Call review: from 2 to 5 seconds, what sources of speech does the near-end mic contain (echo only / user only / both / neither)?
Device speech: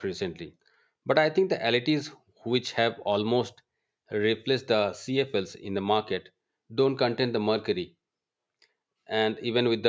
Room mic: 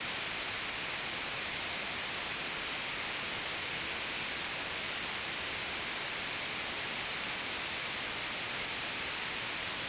neither